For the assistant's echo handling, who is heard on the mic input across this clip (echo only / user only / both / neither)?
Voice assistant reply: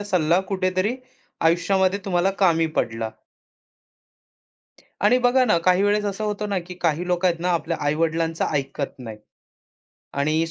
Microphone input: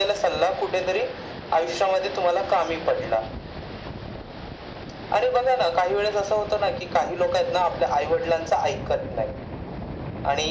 echo only